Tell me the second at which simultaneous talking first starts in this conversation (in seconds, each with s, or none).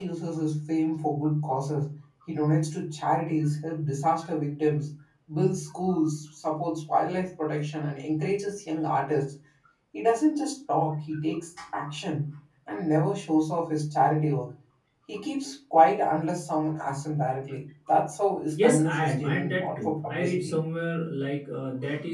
18.6 s